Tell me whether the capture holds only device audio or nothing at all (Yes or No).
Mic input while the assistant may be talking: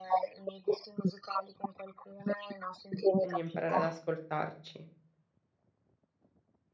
No